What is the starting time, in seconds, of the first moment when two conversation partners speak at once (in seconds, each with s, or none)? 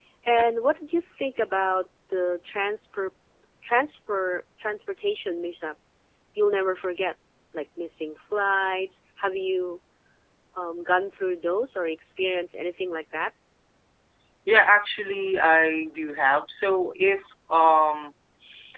none